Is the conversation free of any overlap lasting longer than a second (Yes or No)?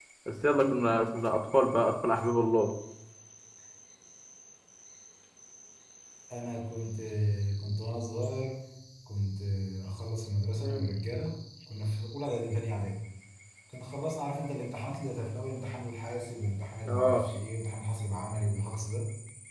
Yes